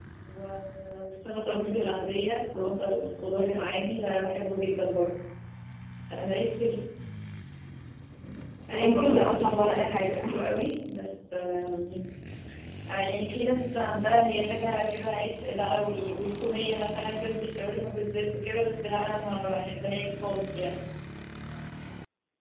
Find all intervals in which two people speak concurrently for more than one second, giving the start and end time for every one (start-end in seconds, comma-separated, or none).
8.7-10.2